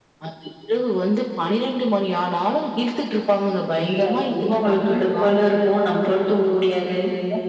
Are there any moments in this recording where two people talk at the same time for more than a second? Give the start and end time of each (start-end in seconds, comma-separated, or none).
3.7-5.4